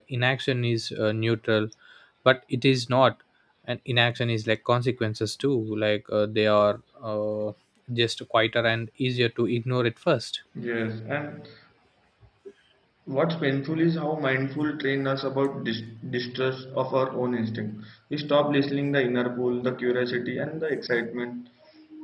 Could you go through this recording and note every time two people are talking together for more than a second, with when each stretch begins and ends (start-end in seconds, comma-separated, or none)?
none